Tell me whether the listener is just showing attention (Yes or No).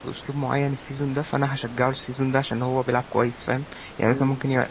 Yes